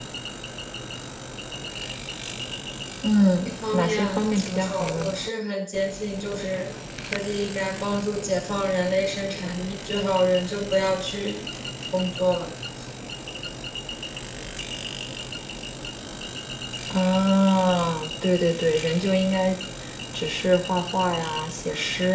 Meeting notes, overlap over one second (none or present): present